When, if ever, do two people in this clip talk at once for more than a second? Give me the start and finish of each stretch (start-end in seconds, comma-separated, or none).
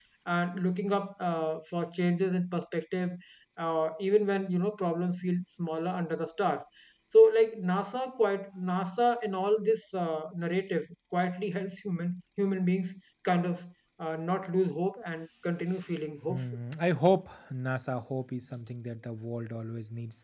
none